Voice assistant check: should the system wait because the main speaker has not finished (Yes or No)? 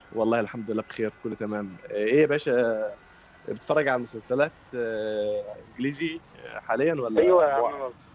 No